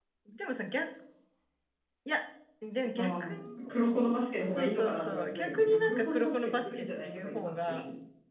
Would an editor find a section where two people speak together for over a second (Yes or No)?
Yes